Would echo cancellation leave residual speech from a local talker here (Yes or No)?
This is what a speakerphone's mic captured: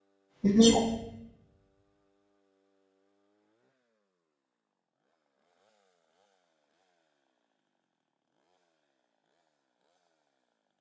Yes